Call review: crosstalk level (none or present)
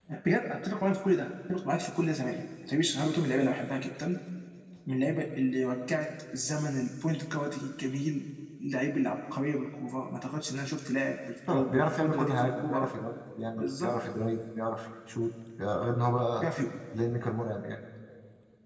present